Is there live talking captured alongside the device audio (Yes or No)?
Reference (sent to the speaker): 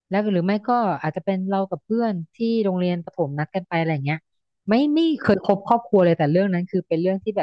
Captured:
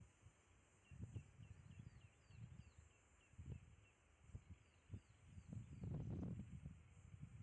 No